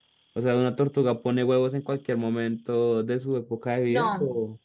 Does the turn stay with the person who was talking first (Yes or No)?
No